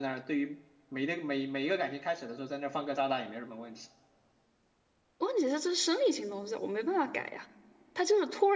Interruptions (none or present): none